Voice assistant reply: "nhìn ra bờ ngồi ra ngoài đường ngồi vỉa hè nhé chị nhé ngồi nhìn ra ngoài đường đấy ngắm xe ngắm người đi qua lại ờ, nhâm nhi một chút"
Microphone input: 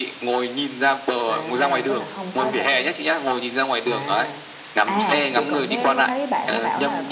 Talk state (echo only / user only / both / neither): both